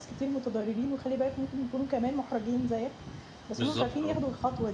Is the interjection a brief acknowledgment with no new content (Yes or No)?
Yes